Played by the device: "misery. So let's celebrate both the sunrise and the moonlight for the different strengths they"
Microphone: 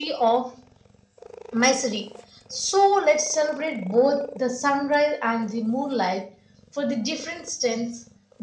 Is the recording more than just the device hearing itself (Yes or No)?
No